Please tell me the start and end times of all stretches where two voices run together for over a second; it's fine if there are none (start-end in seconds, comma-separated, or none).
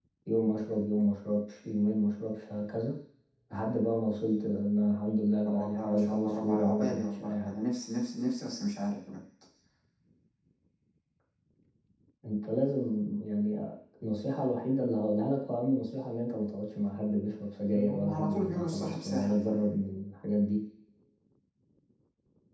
5.4-7.6, 17.7-19.3